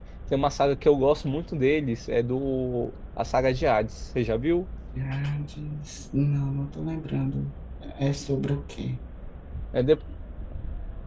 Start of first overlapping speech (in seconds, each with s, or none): none